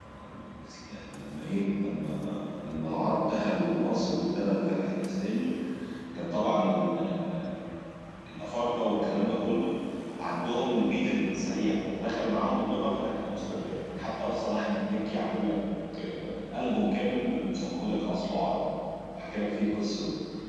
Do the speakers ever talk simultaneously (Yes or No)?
No